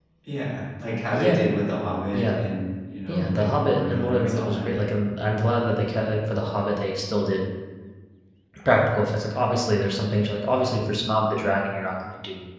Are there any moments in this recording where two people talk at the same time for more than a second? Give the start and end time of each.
3.1-4.7

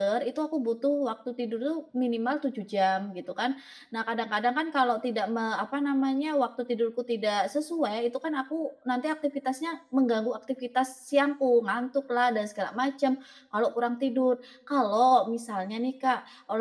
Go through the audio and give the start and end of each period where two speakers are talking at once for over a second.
none

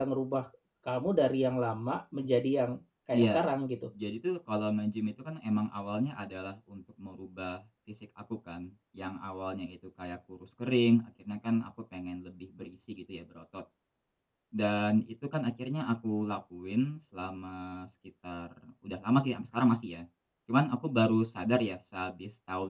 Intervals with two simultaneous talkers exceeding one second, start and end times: none

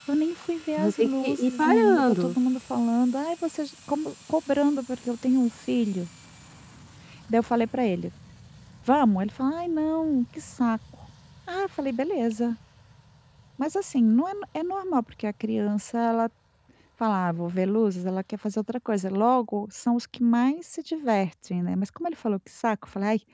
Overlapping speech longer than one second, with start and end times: 0.8-2.4

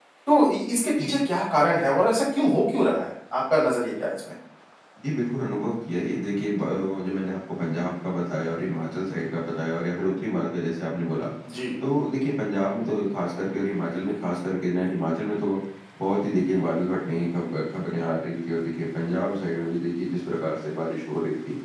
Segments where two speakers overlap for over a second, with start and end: none

